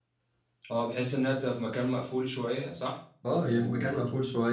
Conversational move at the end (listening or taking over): taking over